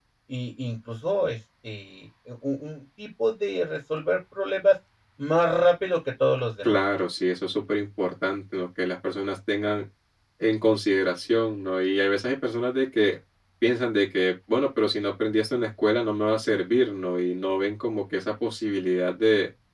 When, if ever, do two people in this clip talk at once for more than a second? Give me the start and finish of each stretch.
none

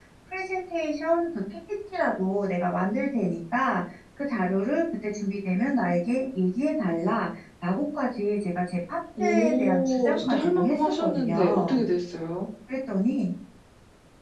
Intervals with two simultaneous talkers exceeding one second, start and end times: 9.2-11.8

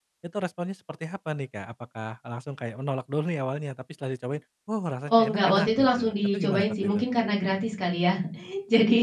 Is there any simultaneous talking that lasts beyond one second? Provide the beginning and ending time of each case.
5.1-7.0

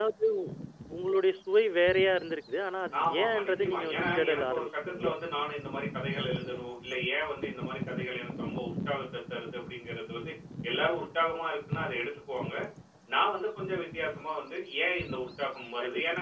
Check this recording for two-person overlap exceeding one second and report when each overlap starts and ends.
3.0-5.1

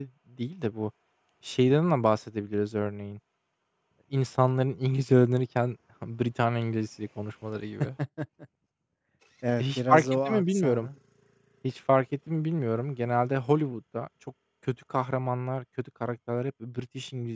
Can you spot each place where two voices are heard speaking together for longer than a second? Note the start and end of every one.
9.6-10.9

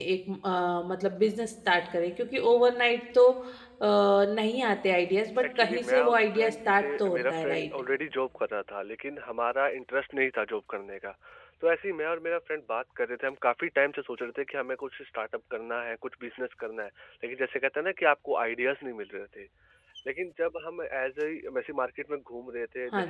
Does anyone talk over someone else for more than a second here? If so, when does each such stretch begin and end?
5.6-7.6

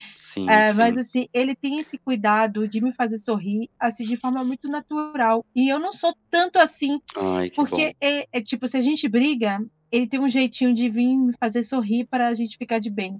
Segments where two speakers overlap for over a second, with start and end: none

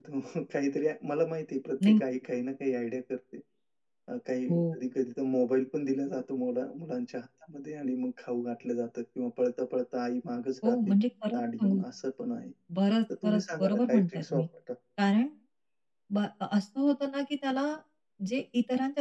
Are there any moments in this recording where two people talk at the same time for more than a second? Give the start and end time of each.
13.2-14.4

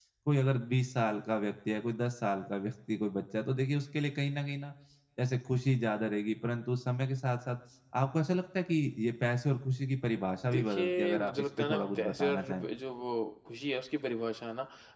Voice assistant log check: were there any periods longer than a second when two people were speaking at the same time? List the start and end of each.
10.5-12.7

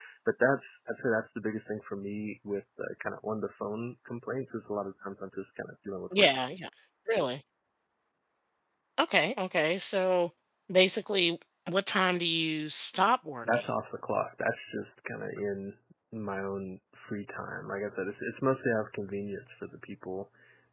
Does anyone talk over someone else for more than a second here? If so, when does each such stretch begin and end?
none

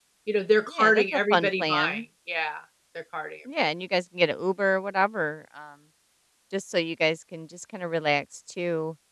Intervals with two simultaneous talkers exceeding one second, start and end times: 0.8-2.0

